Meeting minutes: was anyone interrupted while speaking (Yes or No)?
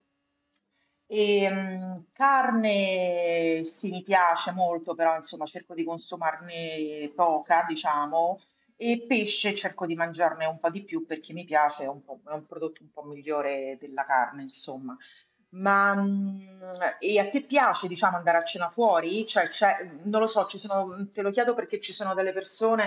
No